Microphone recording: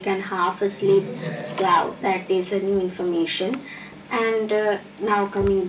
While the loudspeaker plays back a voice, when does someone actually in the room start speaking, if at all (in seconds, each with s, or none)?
0.7 s